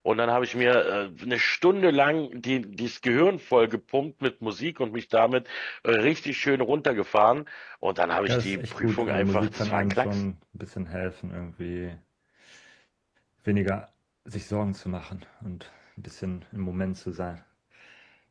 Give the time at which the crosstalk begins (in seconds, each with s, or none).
8.3 s